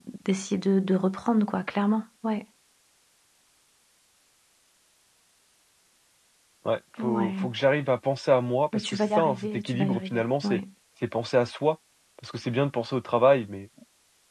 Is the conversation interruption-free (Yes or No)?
No